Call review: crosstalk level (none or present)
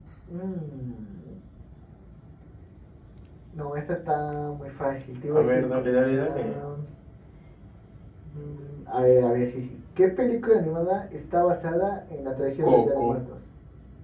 present